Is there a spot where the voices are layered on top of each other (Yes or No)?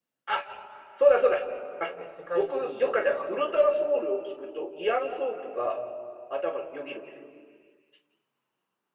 Yes